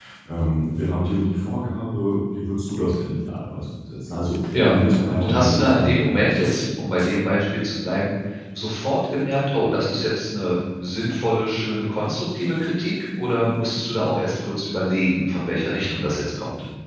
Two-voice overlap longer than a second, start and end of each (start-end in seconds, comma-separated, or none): 5.2-6.5